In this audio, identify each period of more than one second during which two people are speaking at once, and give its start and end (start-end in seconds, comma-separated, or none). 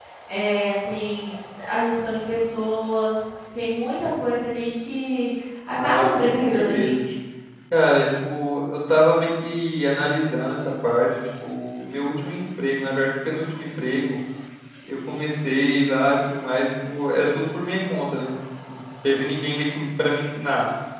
5.7-7.0